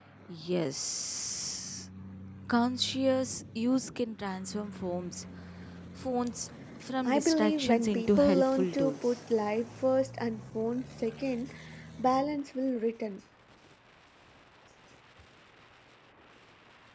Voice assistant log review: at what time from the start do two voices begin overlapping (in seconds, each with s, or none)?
7.0 s